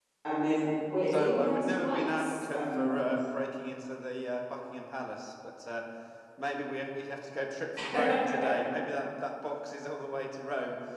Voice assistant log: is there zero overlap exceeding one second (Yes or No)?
No